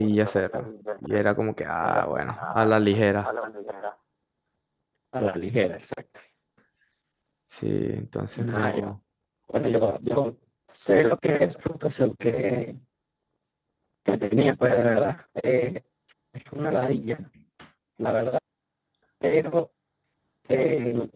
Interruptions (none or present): present